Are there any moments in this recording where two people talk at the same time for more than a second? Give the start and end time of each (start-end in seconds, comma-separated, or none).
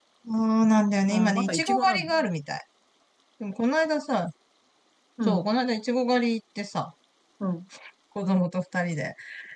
1.1-2.3